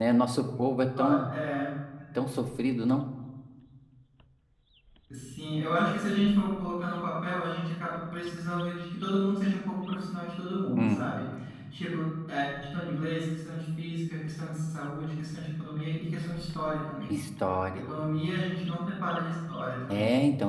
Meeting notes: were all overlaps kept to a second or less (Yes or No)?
Yes